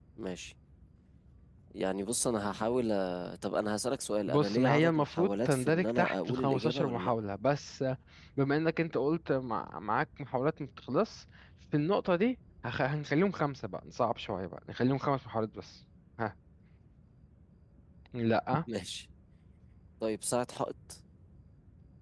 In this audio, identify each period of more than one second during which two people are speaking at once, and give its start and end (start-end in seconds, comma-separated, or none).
4.3-7.1